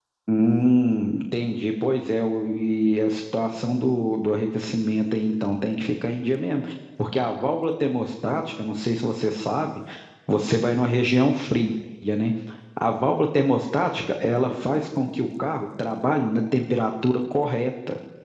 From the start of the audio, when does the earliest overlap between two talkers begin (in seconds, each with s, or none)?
none